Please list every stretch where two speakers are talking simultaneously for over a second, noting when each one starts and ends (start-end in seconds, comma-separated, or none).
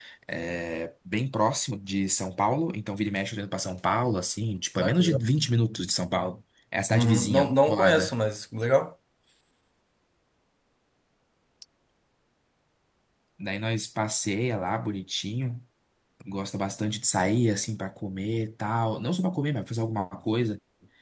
6.9-8.1